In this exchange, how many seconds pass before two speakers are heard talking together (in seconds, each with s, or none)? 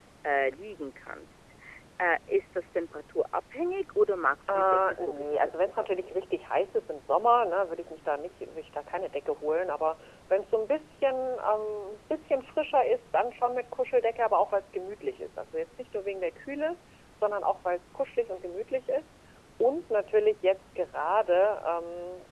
4.5 s